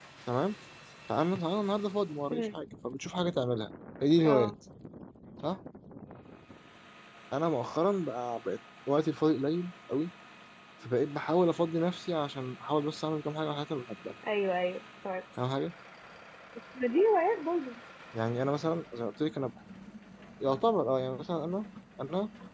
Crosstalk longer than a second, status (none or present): none